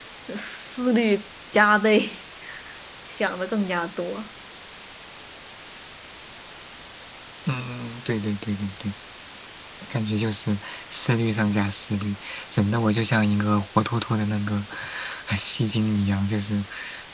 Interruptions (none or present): none